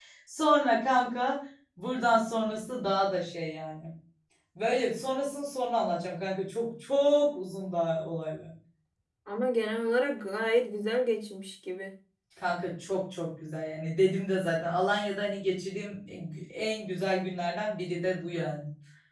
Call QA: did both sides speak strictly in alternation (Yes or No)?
Yes